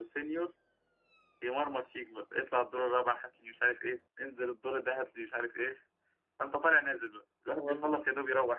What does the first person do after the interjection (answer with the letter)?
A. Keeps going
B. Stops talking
A